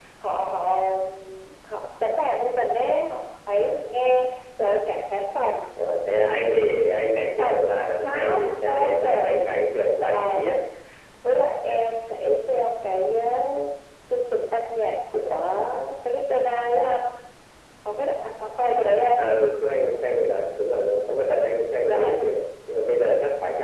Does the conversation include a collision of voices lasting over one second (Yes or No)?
Yes